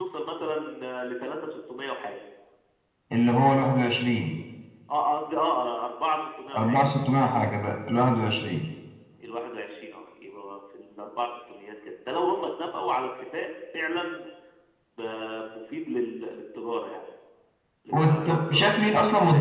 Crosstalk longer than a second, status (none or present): present